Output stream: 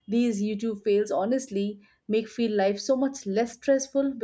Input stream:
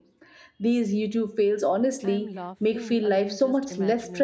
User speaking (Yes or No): Yes